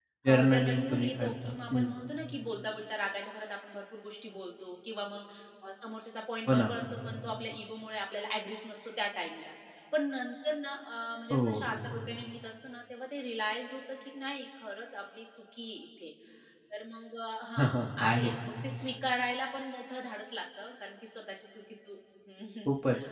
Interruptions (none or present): present